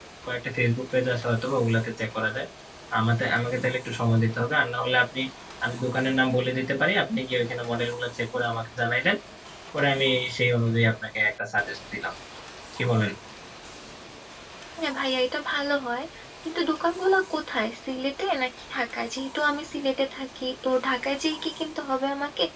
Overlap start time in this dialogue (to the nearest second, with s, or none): none